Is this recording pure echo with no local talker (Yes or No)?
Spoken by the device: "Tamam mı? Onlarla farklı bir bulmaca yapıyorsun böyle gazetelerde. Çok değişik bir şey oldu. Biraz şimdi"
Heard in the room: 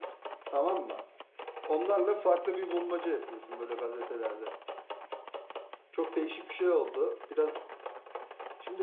Yes